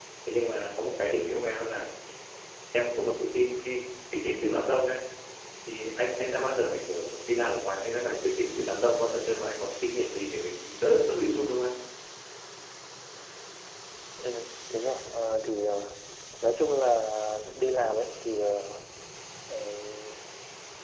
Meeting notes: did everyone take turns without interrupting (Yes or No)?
Yes